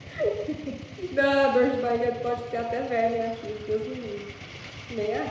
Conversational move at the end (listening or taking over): taking over